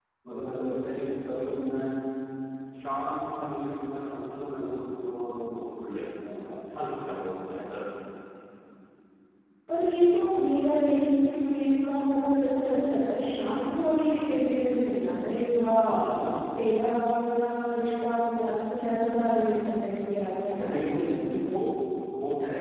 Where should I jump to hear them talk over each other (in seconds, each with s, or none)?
none